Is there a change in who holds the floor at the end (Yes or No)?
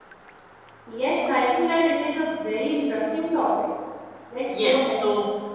Yes